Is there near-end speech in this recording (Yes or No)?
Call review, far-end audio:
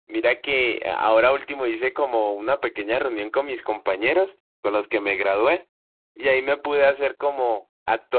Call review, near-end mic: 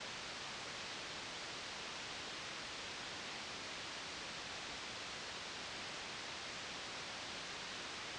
No